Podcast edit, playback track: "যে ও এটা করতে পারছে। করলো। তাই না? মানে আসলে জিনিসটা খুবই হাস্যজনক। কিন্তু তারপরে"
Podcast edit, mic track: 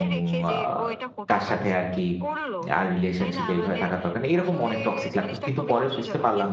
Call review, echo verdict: present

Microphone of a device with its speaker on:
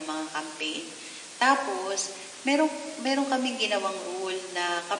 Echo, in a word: present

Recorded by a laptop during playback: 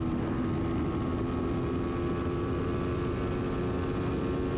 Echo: none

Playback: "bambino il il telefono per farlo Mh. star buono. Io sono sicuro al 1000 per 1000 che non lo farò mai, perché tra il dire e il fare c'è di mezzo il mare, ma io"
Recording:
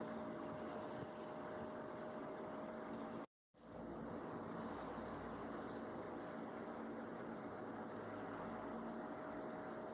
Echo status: none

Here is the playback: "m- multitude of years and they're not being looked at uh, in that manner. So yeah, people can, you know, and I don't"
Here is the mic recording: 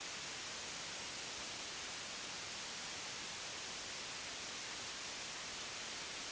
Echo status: none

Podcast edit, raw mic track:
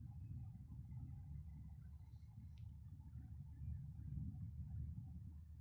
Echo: none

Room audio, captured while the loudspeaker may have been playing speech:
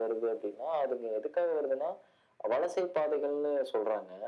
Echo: present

